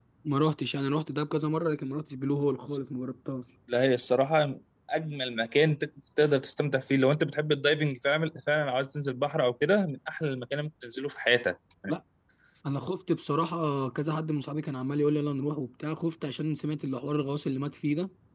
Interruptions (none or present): none